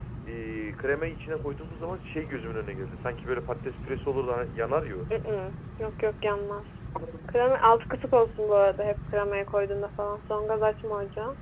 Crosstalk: none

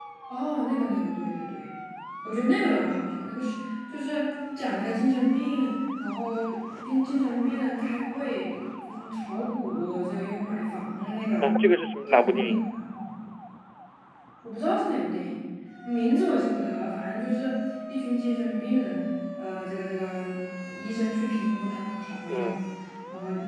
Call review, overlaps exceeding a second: none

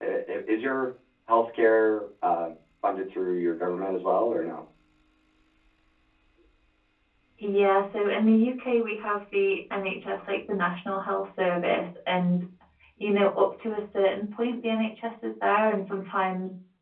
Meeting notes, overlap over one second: none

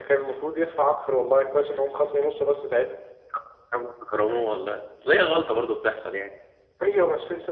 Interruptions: none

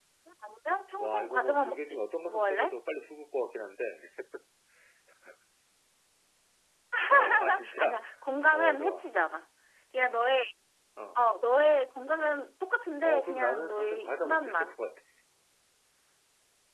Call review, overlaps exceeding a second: present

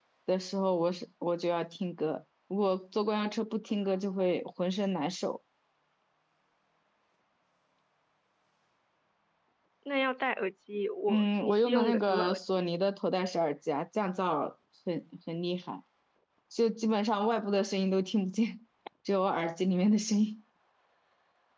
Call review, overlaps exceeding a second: present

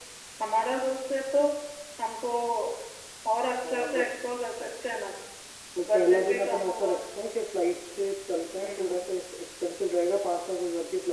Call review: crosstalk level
present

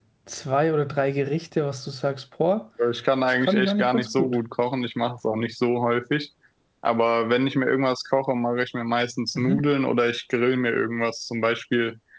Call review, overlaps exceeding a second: present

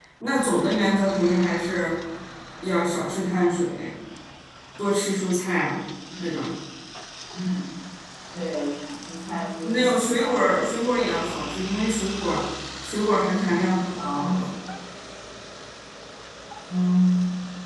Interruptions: present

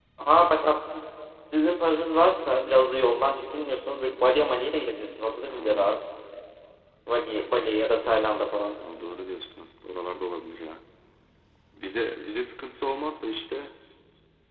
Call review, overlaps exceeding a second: none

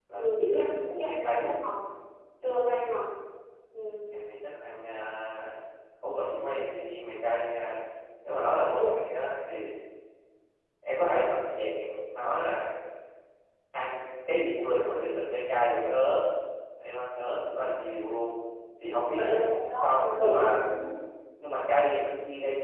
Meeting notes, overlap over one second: present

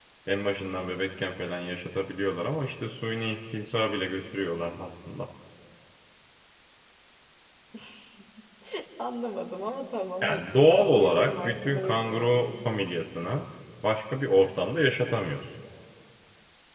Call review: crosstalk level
present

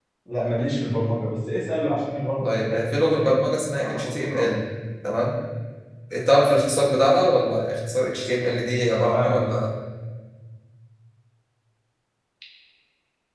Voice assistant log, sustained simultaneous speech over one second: present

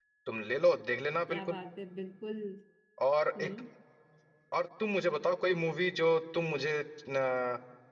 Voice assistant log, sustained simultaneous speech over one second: none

